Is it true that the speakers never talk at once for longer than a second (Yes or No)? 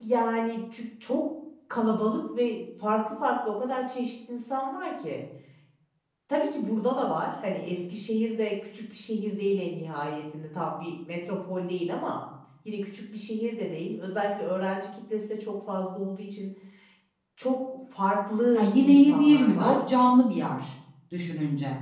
No